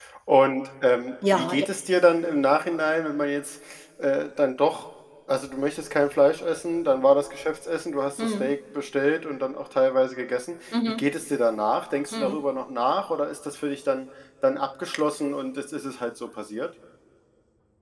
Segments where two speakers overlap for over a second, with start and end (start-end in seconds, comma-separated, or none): none